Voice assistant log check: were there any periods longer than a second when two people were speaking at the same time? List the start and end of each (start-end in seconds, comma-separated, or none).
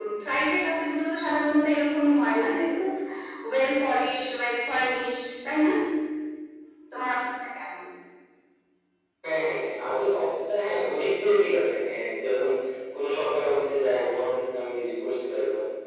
none